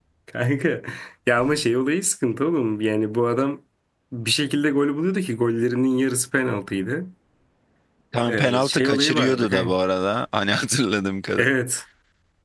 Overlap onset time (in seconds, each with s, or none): 8.2 s